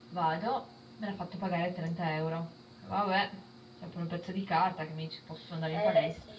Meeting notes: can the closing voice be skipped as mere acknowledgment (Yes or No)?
No